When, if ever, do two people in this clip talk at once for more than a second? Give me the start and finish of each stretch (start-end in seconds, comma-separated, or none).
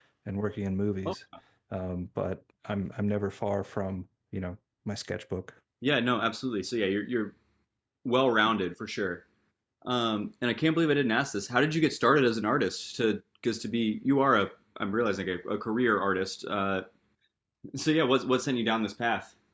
none